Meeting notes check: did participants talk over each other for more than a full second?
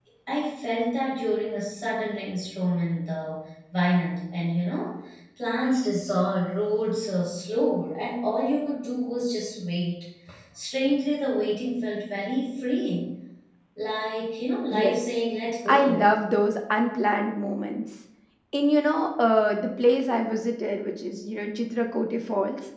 No

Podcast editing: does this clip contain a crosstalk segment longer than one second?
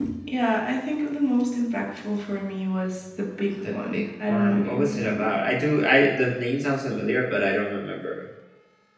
Yes, from 3.6 s

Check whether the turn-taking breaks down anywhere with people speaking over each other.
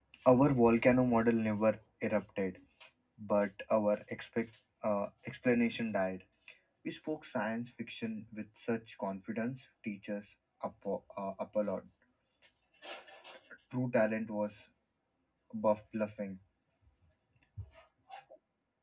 No

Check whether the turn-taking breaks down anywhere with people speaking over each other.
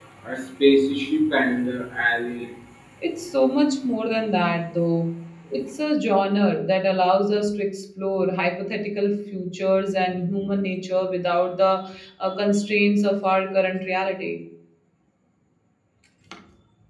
No

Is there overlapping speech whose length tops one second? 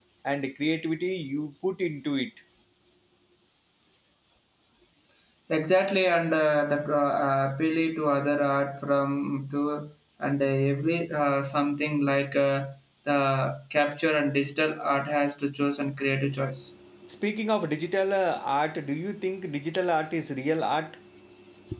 No

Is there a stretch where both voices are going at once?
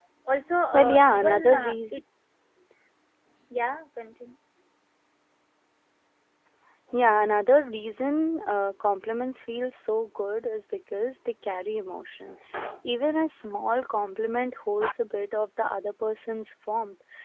Yes, from 0.7 s

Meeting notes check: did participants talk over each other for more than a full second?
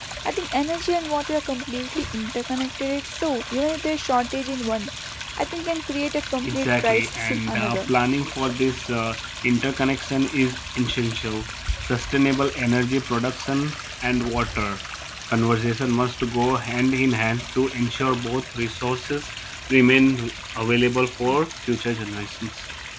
Yes, from 6.4 s

